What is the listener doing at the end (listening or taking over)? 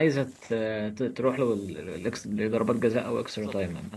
taking over